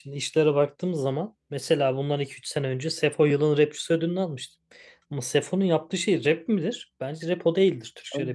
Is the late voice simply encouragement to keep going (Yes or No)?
No